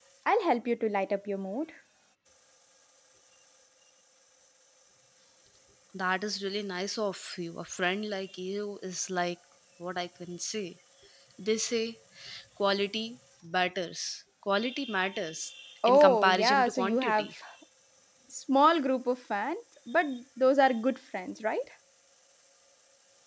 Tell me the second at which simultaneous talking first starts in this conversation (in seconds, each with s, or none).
15.8 s